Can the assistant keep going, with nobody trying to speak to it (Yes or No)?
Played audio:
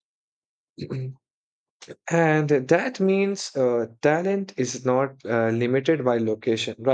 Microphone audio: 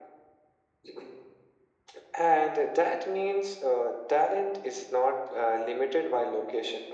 Yes